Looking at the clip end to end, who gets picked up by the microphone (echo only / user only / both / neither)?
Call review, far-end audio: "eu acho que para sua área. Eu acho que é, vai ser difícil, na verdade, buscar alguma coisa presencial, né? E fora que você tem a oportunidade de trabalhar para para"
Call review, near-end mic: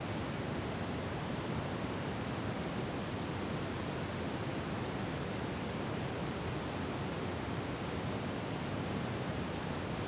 neither